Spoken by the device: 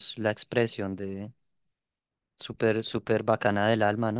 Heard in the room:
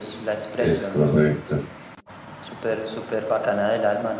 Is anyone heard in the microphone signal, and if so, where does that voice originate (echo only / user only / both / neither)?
both